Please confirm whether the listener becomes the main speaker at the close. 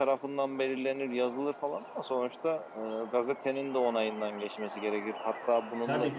No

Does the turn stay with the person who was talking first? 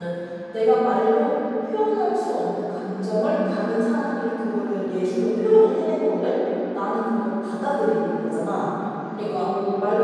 Yes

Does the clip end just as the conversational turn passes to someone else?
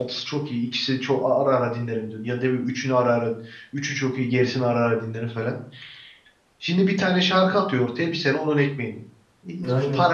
No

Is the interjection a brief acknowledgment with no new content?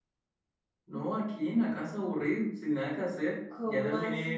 No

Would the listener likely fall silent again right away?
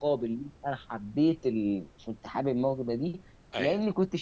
Yes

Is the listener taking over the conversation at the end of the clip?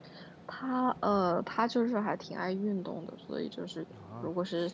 No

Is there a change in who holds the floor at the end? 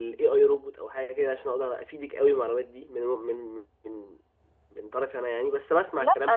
Yes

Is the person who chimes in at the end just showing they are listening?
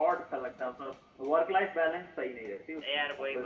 No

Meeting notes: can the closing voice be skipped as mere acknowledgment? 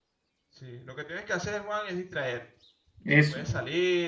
Yes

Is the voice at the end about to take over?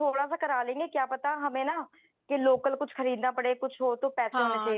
Yes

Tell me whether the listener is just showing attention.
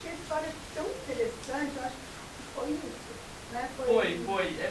No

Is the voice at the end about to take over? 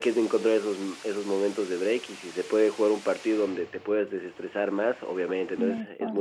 No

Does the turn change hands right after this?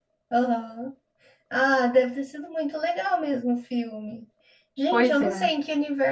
No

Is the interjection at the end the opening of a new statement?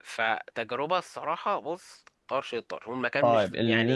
Yes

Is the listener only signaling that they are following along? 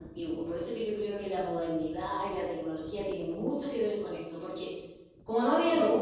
Yes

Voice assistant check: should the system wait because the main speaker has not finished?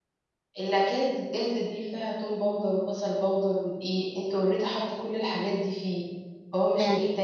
No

